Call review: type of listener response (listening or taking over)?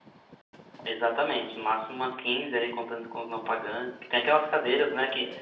listening